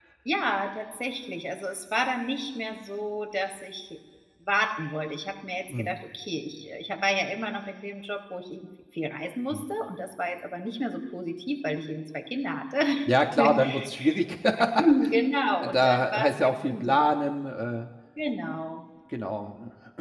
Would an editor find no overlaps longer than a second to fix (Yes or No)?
No